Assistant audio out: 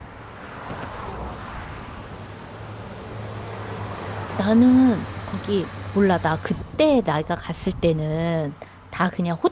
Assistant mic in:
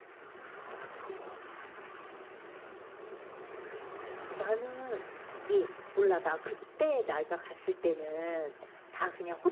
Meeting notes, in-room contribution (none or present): none